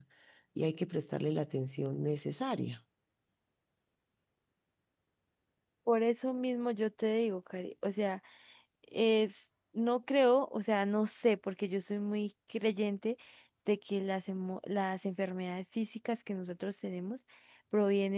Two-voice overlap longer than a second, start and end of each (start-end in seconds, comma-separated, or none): none